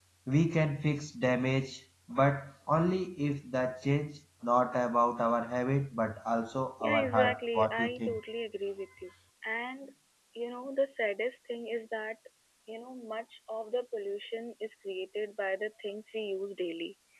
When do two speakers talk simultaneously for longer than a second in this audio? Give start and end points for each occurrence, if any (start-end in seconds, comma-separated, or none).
6.8-8.2